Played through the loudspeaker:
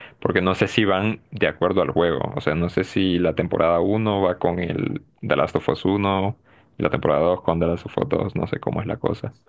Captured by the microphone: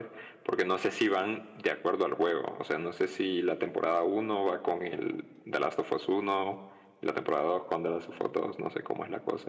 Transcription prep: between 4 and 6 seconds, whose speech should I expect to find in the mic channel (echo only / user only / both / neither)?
echo only